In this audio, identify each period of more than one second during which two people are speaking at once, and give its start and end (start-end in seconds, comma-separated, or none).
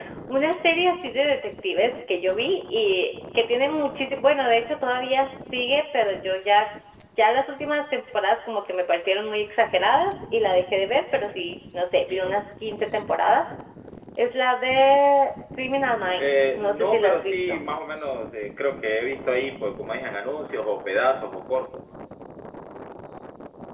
16.2-17.6